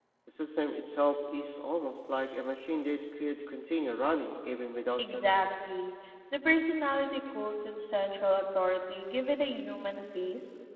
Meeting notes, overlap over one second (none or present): none